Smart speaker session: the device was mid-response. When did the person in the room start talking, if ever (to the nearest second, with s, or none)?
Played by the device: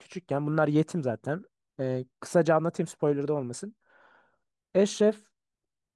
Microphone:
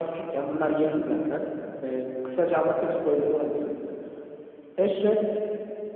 none